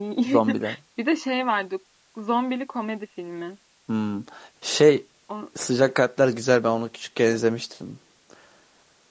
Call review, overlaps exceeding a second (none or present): none